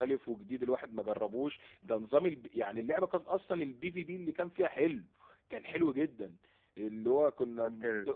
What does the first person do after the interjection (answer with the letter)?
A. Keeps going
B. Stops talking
A